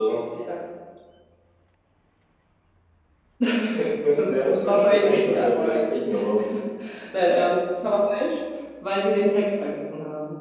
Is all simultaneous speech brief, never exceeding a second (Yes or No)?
No